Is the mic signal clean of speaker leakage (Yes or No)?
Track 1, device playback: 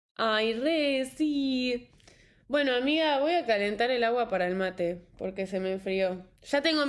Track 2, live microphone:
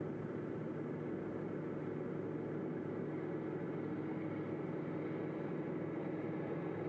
Yes